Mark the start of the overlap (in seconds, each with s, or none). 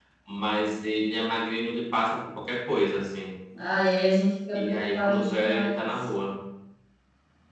4.5 s